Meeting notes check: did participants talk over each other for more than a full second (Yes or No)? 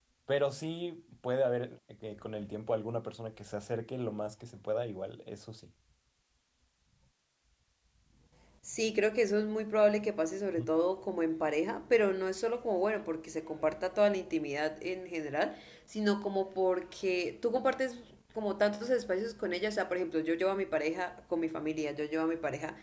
No